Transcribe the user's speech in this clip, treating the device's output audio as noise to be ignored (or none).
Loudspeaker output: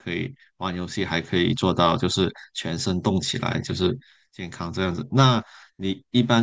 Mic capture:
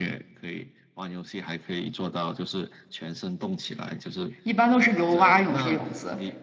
一般都是游蛙泳这个泳姿。